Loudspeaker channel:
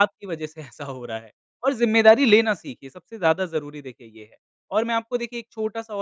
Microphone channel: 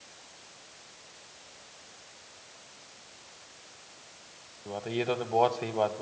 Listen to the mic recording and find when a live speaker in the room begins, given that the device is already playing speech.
4.7 s

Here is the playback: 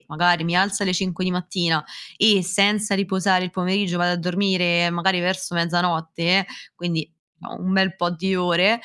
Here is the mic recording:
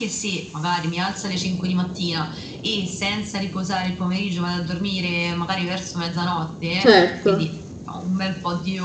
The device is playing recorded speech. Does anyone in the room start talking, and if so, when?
6.8 s

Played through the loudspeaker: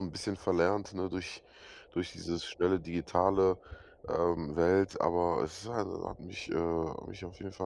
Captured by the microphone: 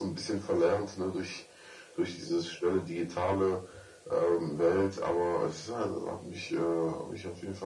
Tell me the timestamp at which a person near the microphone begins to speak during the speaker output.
none

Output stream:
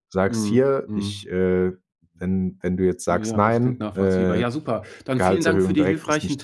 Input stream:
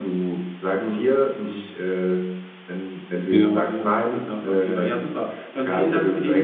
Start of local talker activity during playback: 3.3 s

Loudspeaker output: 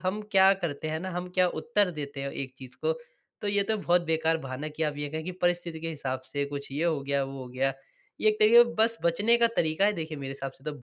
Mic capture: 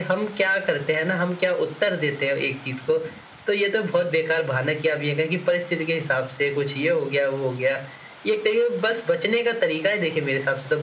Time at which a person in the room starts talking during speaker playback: none

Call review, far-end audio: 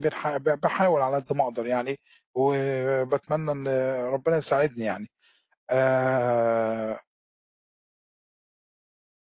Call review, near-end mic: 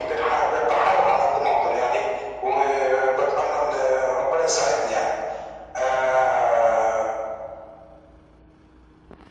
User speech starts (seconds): none

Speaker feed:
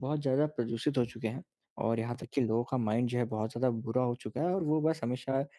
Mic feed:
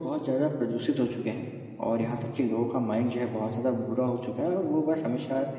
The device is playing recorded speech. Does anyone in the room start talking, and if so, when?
2.0 s

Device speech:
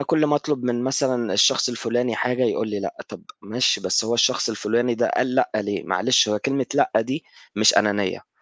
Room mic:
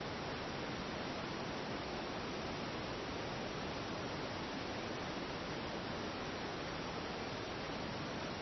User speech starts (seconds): none

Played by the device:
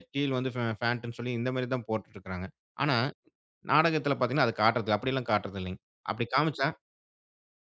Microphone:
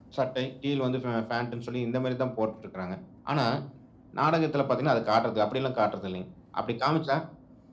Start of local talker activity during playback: none

